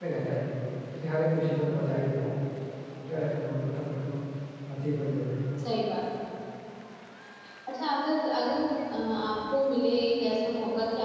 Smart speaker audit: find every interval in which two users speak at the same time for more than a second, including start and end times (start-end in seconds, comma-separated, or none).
none